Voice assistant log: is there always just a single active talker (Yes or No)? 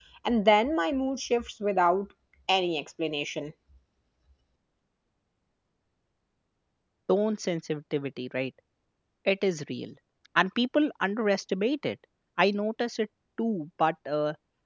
Yes